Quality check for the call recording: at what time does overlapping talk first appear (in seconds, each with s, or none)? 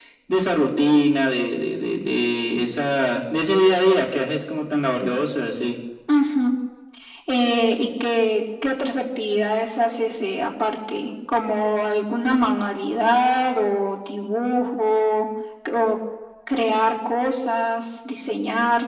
none